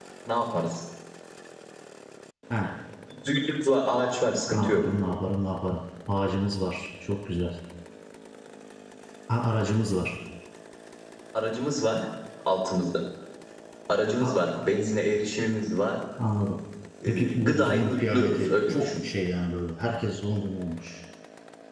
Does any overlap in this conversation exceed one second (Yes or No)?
Yes